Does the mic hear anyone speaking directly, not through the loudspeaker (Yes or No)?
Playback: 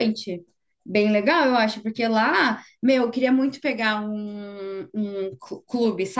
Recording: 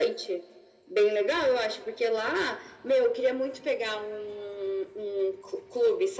No